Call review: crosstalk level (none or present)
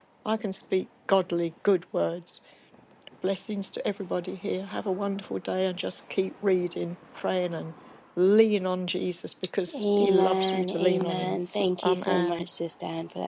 present